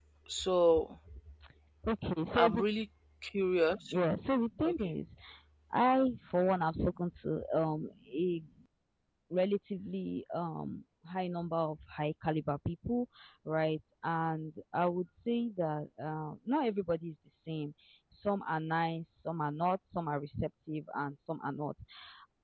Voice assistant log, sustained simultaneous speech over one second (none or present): none